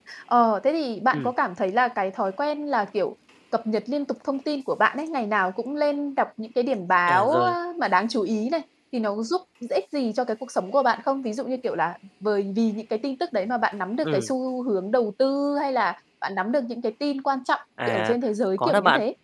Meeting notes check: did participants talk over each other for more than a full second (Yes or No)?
No